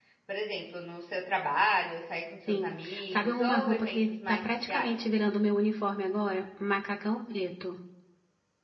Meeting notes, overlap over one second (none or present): present